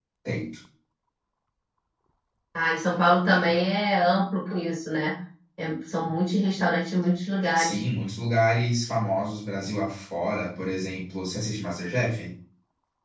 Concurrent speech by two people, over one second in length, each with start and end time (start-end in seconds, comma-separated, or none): none